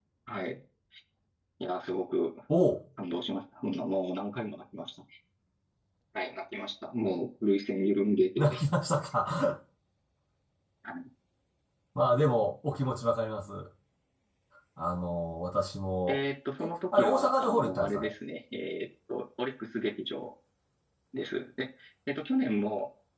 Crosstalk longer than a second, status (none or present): present